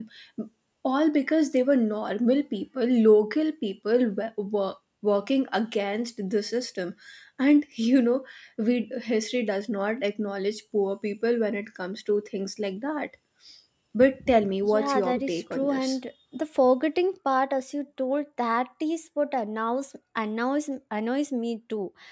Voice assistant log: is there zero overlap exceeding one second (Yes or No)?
No